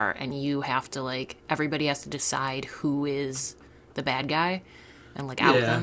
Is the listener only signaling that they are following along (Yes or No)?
No